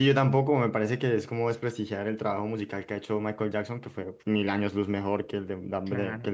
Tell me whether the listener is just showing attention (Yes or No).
No